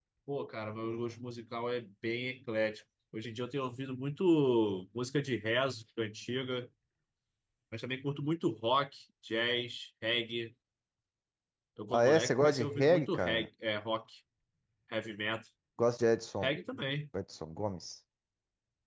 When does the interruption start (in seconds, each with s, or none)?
11.9 s